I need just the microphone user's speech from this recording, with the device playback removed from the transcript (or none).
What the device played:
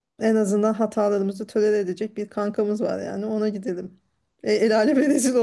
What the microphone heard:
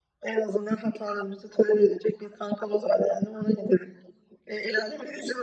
none